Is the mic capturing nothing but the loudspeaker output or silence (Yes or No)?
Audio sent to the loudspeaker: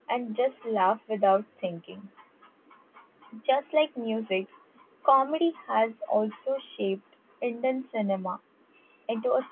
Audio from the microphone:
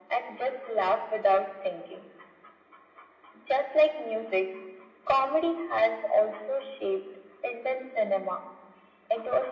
Yes